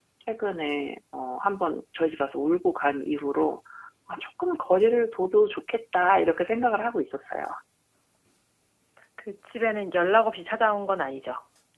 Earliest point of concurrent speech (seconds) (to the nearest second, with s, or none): none